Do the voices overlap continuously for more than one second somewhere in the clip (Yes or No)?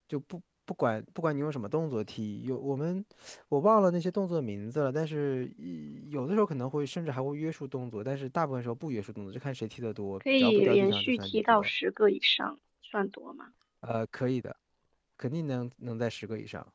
Yes